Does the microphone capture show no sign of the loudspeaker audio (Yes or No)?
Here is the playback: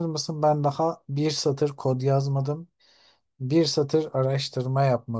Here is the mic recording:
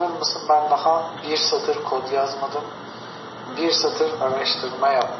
No